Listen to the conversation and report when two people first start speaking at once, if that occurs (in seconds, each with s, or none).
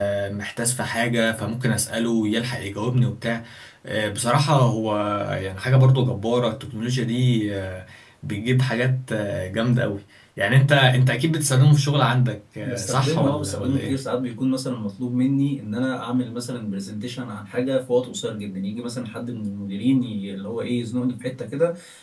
12.6 s